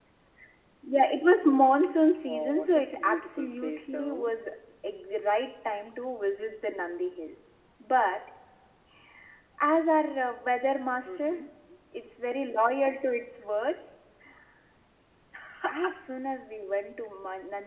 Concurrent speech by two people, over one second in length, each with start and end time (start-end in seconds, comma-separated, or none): 2.2-4.3